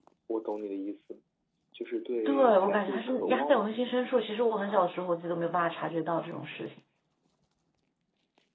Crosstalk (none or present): present